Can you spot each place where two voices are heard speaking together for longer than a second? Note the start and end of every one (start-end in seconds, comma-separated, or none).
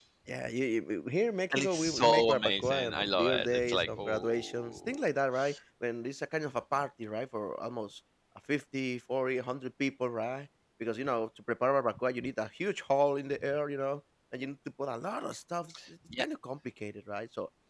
1.5-5.0